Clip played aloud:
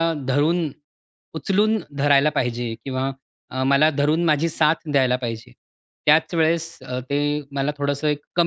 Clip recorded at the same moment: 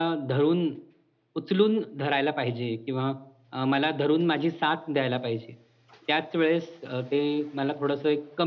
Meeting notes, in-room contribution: none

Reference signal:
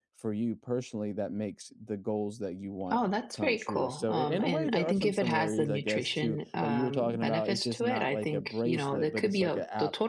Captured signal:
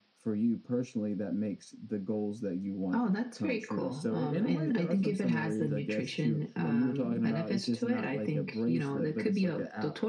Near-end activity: none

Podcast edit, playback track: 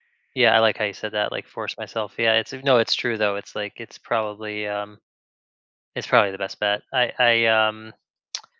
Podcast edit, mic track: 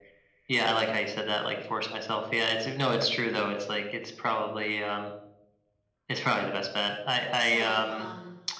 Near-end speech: present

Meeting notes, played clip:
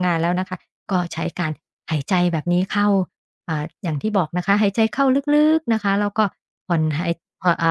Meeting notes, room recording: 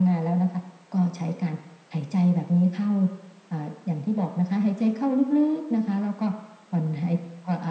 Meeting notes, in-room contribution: none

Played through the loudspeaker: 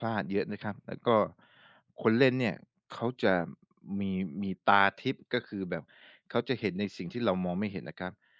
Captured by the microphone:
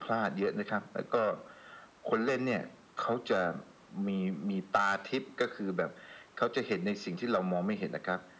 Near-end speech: none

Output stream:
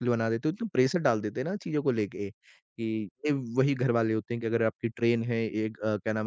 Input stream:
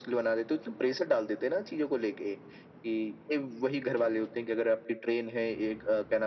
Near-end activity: none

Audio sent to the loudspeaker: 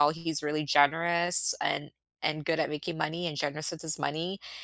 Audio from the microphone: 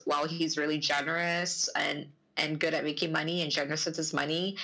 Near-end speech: none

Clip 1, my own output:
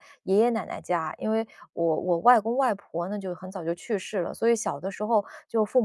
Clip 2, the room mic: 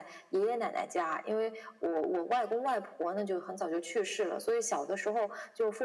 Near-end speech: none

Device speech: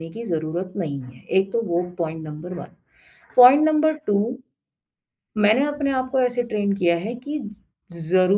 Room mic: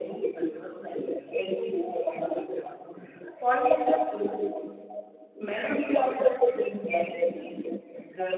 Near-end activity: none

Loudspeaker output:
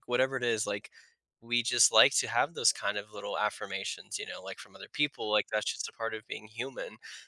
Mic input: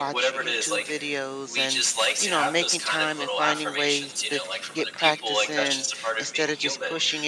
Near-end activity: present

